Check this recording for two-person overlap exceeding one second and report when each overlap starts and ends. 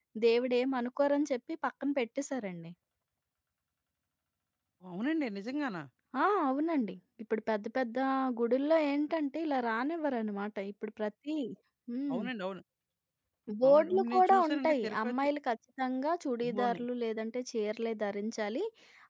13.7-15.2

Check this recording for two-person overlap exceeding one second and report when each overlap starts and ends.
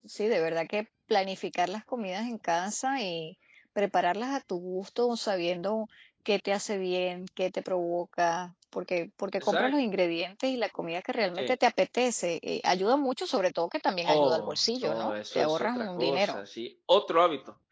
14.1-16.4

